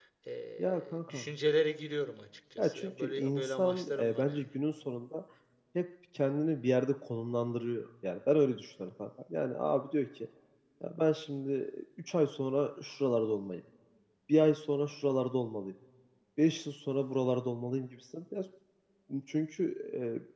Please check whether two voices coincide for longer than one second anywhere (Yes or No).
Yes